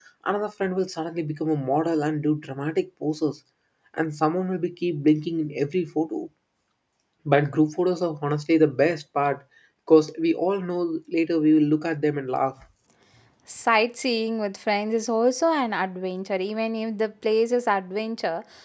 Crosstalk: none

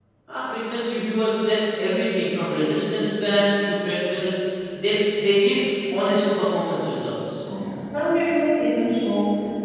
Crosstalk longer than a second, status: none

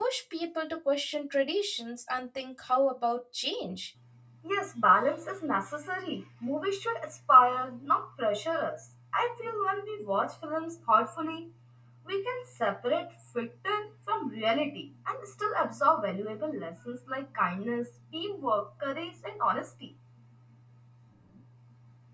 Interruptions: none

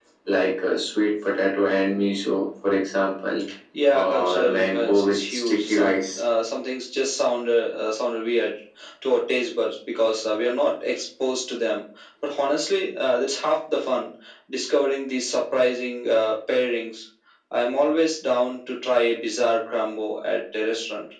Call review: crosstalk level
present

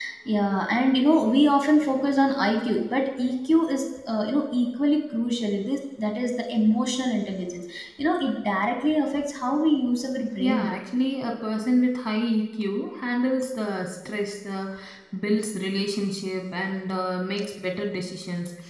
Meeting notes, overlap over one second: none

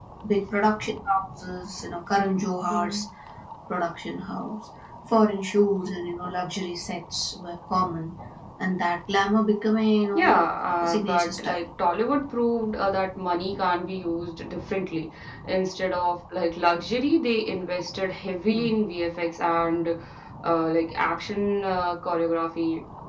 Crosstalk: present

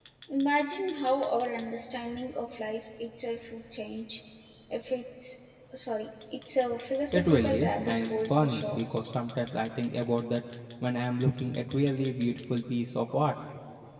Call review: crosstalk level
present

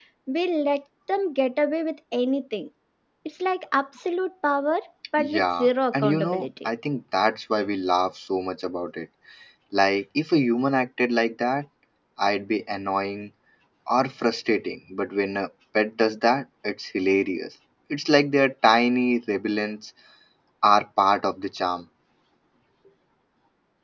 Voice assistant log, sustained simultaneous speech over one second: present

